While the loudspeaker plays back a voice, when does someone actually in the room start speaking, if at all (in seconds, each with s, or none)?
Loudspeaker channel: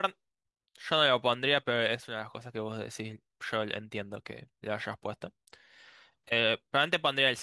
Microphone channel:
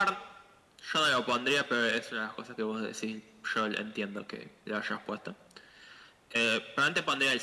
none